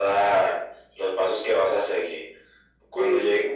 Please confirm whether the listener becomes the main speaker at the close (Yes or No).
No